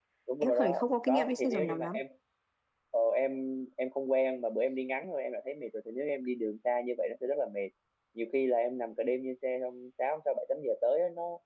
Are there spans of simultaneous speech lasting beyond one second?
Yes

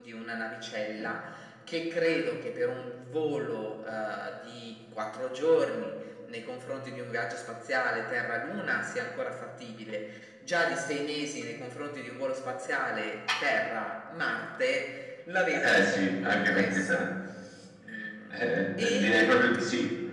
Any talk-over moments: Yes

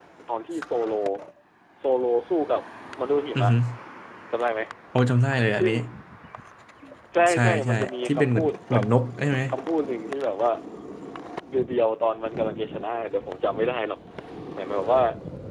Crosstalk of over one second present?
Yes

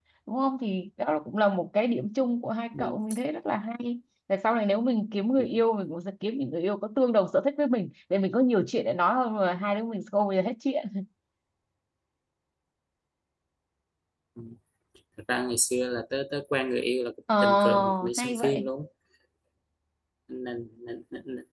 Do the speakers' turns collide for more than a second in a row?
Yes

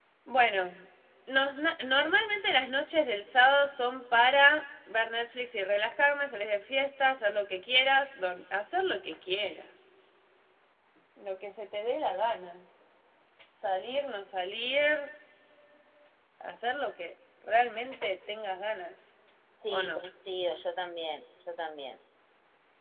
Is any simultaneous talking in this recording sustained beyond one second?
No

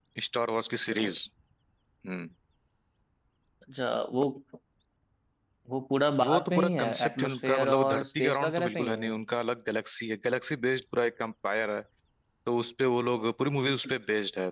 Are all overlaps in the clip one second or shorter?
No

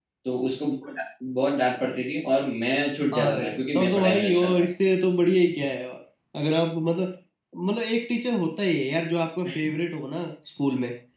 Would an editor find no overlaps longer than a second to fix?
No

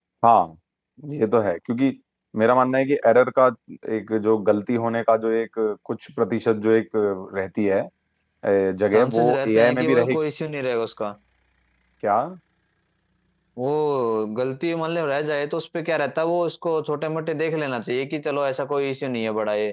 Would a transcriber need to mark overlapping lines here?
Yes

